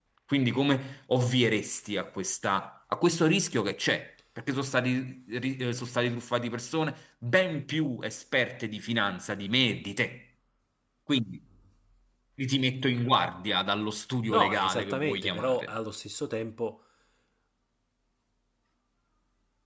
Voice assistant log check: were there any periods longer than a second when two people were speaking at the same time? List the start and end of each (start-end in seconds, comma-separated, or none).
14.3-15.7